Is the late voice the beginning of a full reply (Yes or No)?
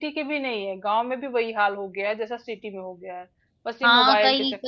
Yes